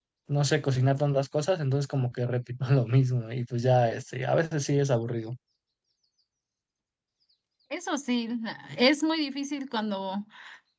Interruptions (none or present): none